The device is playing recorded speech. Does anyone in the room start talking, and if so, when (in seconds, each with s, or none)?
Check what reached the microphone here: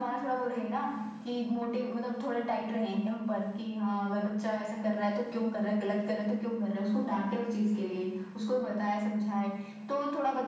none